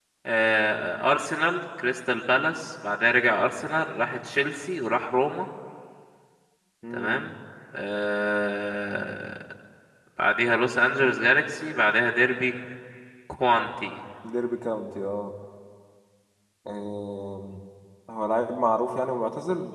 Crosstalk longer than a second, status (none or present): none